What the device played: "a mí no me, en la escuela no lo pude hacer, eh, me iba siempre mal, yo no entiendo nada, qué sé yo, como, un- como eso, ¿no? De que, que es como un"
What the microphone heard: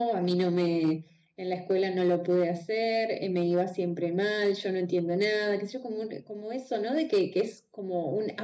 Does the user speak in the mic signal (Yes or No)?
No